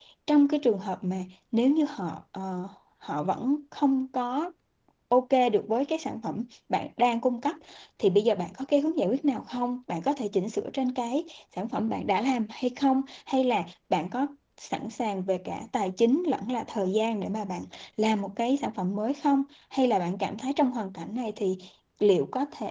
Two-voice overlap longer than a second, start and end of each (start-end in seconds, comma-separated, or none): none